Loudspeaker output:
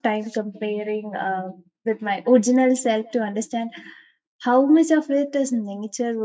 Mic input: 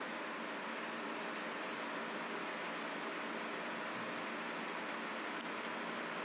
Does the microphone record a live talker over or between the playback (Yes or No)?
No